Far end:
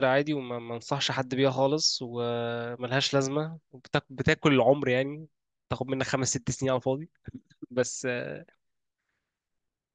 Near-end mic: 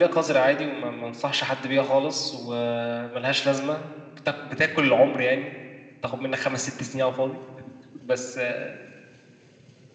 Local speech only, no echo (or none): none